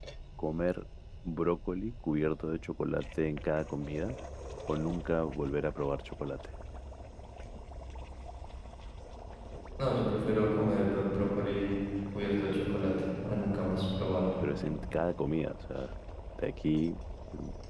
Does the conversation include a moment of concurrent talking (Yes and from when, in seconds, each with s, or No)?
No